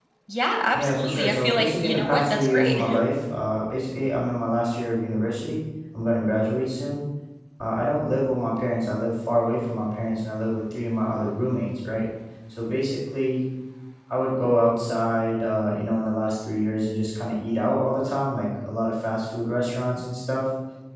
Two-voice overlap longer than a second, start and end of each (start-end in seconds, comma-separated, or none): 0.7-2.8